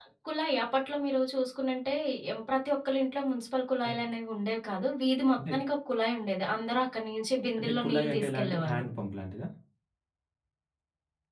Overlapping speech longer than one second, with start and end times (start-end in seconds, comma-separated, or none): 7.6-8.8